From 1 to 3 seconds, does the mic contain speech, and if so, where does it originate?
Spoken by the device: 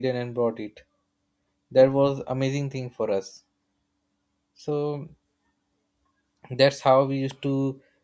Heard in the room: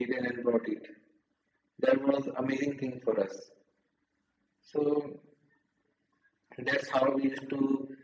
echo only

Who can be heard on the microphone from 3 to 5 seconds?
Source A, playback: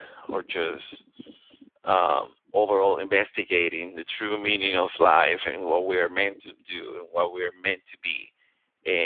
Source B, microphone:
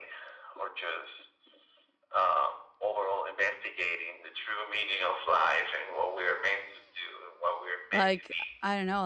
echo only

